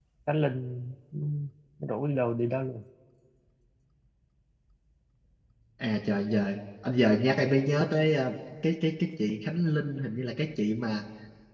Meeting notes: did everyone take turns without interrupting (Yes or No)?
Yes